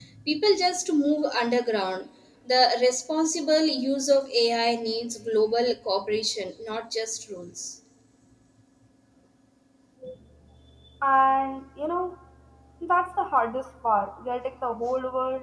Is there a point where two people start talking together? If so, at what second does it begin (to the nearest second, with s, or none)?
none